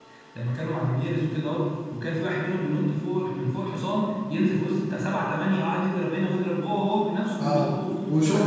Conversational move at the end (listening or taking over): taking over